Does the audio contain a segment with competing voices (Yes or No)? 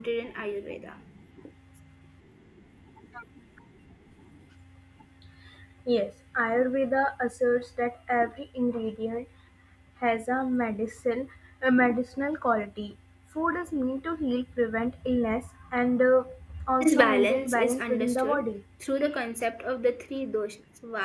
Yes